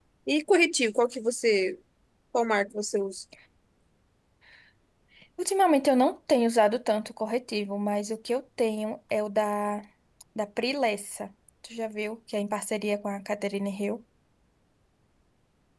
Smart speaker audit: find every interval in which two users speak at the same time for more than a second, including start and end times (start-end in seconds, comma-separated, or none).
none